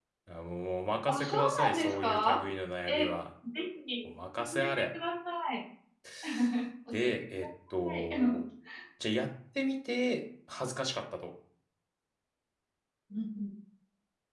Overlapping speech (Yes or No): Yes